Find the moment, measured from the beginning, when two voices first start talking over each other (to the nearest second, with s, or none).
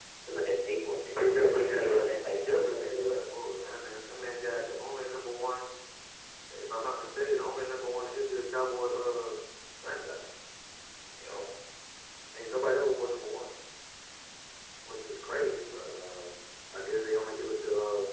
1 s